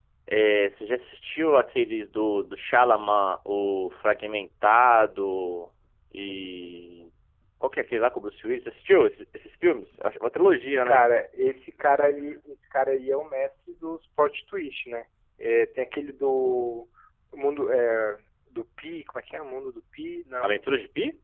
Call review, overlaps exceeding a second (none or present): none